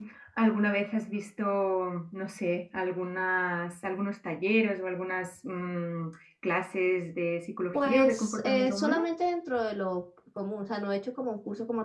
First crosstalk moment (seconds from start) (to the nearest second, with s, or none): 8 s